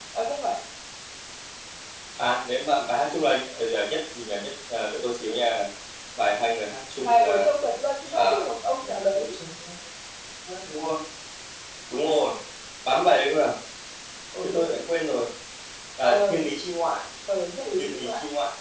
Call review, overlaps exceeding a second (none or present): present